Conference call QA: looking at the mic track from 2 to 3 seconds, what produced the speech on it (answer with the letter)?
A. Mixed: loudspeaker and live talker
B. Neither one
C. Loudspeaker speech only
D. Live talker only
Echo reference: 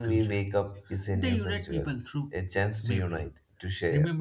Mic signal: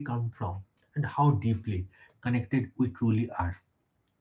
D